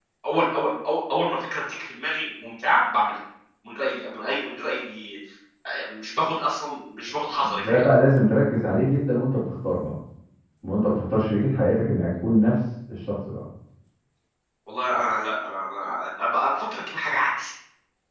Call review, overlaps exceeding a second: none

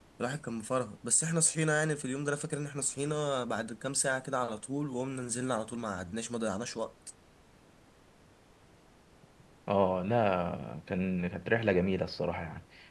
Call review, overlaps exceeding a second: none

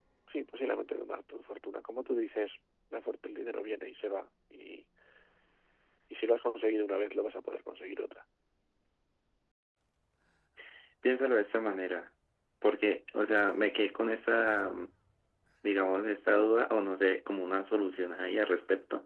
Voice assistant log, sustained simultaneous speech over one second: none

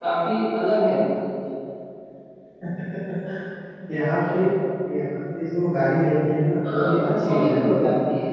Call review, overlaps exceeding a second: present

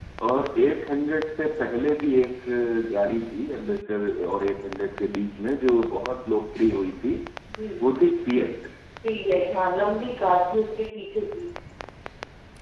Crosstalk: none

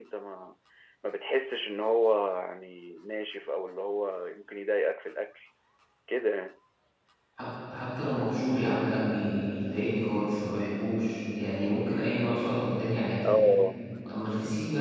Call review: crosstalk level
none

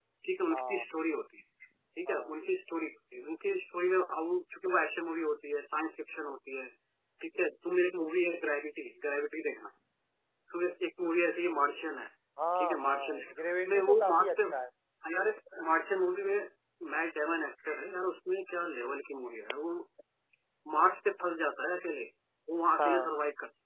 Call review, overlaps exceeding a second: present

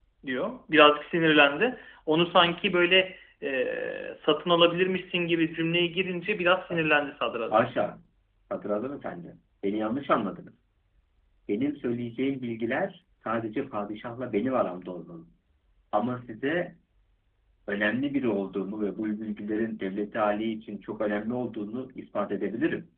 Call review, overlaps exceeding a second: none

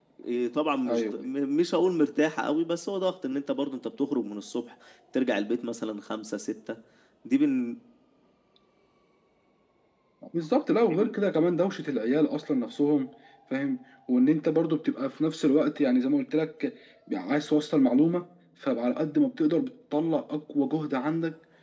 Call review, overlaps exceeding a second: none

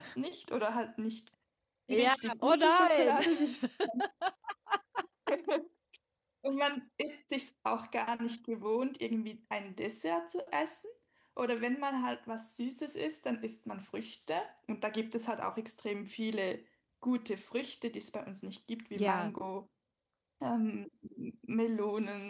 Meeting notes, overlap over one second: present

